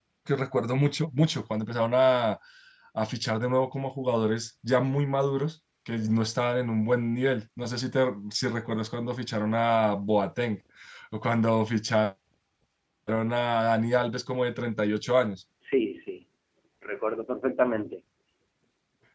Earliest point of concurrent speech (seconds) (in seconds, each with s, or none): none